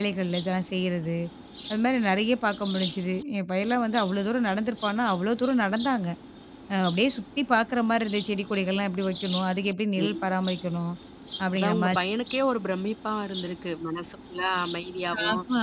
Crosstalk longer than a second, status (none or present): none